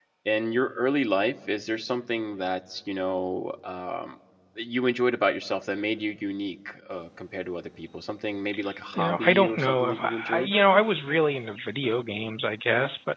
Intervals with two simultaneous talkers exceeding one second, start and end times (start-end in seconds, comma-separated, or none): 9.0-10.5